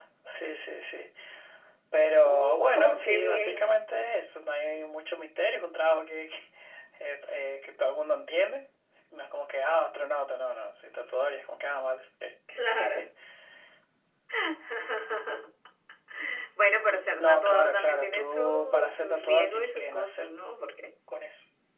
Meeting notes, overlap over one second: present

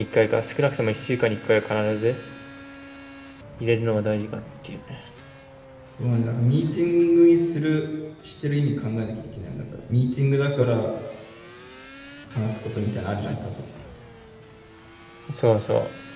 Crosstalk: none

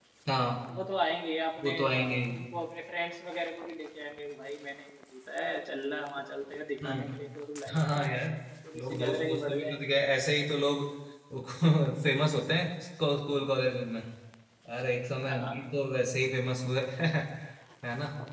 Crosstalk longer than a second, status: present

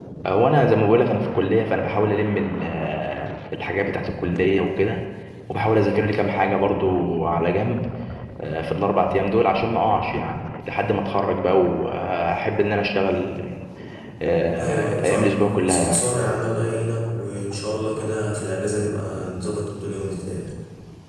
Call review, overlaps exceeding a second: present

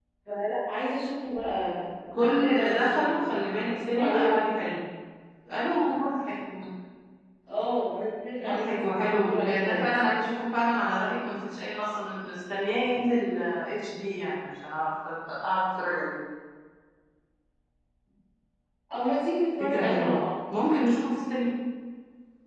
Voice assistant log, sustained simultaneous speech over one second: present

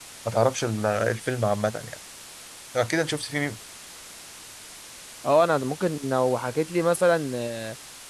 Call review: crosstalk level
none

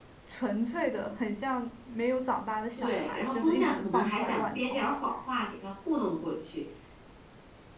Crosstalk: present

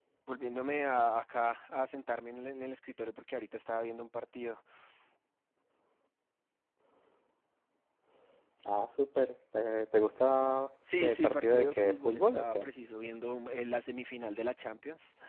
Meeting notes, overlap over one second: present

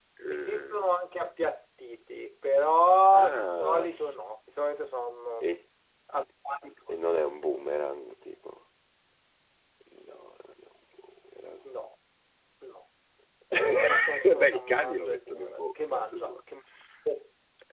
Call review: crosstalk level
present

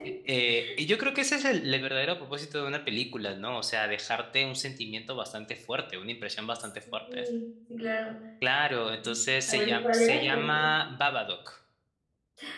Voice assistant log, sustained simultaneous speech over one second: present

